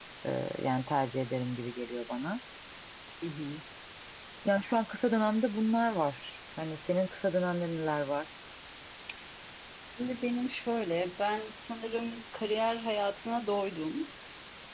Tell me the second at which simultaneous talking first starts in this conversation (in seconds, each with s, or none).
none